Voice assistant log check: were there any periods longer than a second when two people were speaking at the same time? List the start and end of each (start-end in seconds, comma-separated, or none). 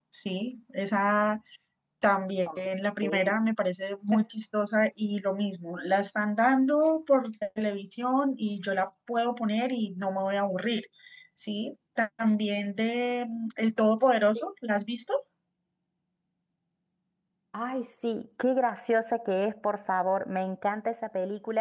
none